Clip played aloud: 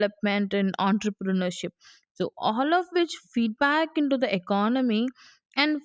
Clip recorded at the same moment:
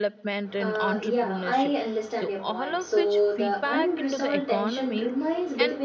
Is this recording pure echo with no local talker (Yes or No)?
No